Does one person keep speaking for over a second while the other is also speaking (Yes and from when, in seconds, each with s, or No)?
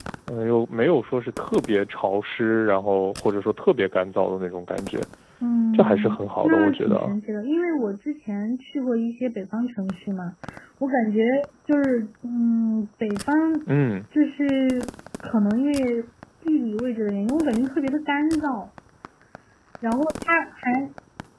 Yes, from 5.7 s